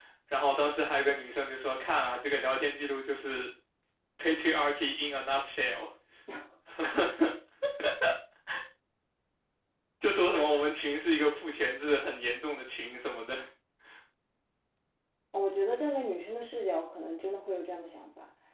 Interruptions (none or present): none